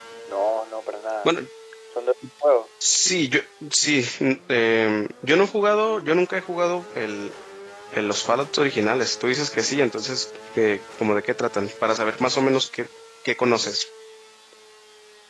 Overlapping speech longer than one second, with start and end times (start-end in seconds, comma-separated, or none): none